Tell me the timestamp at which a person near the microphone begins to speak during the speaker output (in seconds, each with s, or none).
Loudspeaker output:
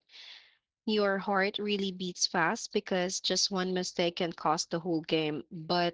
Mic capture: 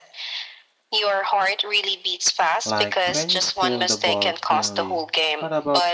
2.6 s